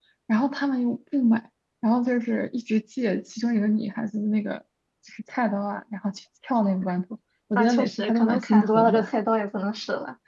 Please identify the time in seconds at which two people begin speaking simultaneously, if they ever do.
7.5 s

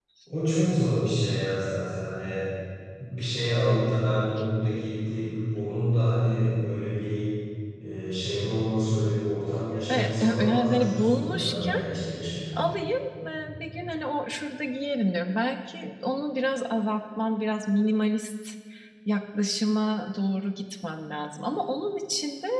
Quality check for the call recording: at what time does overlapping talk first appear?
9.9 s

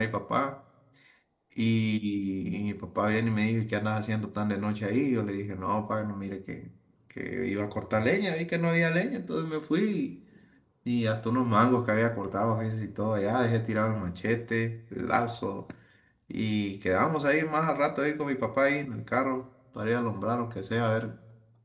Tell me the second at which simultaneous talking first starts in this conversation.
none

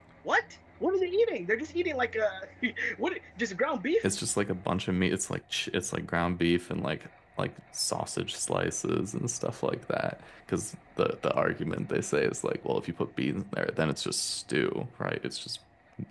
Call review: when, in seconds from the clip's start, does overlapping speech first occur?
none

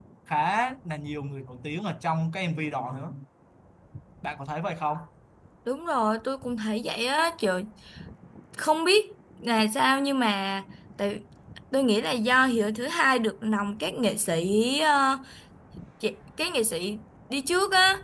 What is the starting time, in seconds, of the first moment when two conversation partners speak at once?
none

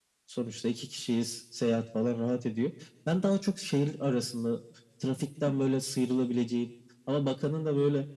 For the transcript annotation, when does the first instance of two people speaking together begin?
none

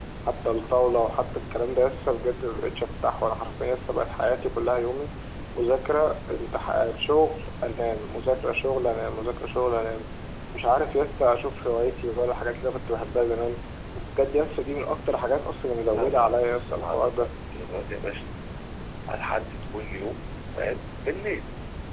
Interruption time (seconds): 15.8 s

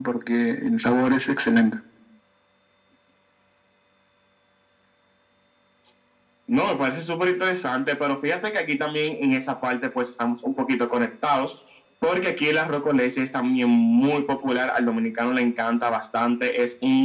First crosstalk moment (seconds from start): none

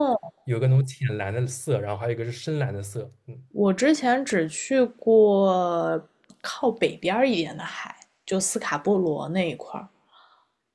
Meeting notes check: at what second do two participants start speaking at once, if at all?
none

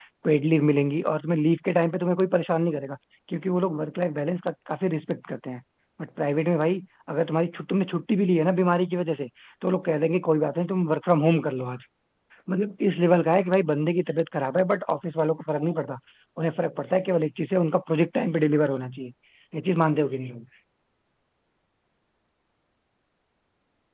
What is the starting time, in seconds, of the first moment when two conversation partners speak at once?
none

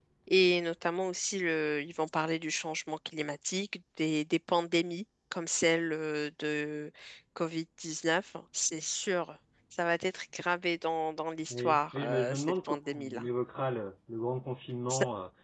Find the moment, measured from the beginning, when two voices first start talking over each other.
11.5 s

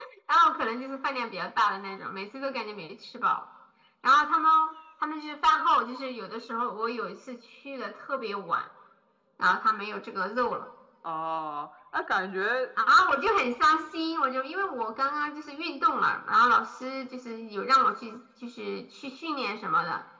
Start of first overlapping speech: none

